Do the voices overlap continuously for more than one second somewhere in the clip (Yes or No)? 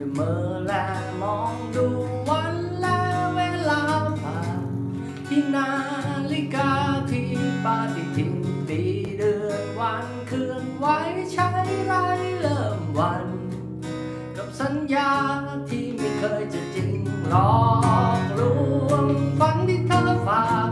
No